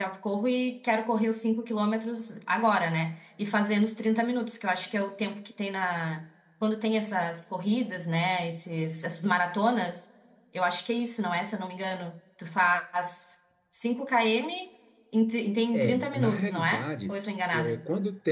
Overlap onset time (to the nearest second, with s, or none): 16 s